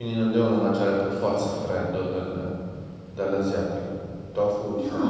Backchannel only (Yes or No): No